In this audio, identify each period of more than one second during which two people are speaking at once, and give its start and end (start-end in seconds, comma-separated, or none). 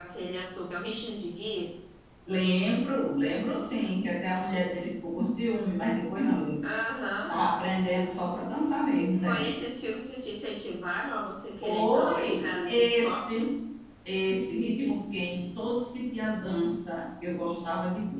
11.6-13.4